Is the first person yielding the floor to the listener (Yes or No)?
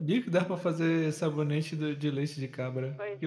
Yes